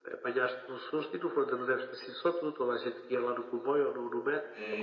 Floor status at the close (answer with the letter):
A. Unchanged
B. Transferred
B